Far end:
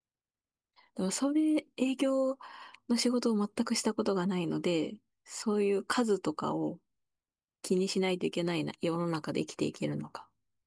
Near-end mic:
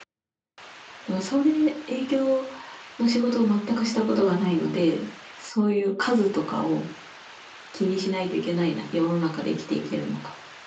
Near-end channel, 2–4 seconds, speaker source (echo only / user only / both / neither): echo only